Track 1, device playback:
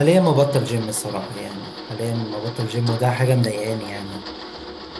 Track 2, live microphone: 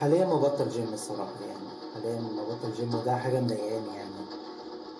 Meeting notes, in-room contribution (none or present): none